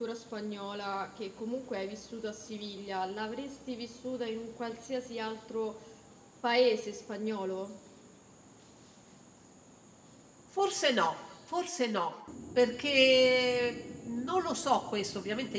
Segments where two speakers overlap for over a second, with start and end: none

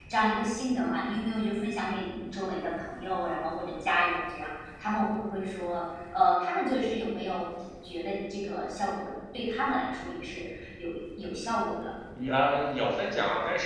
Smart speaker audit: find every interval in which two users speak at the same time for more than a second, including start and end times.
none

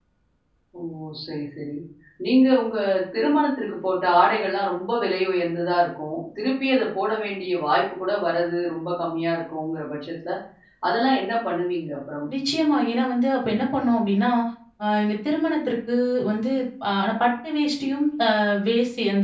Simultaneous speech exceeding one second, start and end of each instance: none

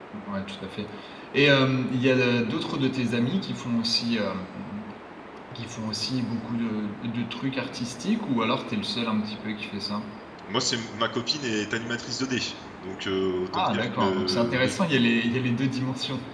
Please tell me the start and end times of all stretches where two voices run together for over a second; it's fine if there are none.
13.5-14.7

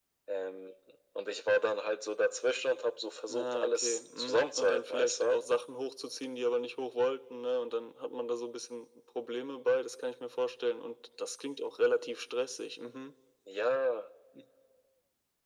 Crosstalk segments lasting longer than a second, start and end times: 3.3-5.4

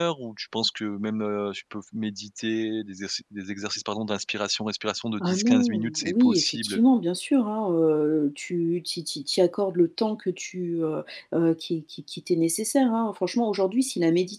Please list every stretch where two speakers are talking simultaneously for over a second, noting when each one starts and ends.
5.2-6.8

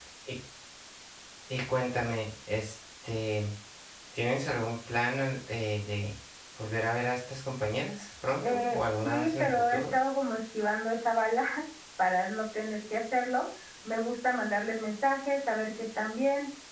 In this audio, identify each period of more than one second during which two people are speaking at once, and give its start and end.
8.4-9.8

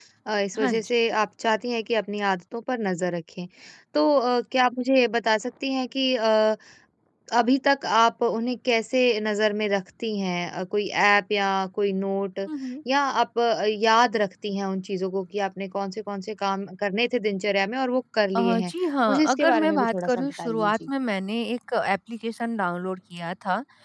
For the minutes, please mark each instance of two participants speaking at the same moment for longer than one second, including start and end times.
19.1-20.9

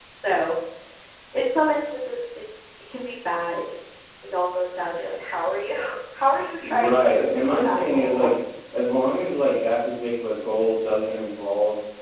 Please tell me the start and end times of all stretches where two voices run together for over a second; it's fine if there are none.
6.6-8.3

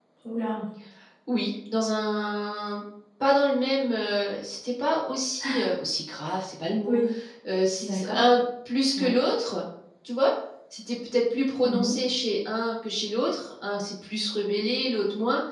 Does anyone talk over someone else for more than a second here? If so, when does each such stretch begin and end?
none

